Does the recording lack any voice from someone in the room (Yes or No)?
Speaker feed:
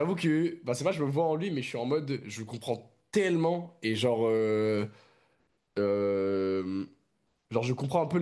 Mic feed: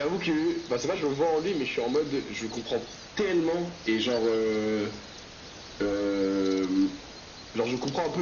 Yes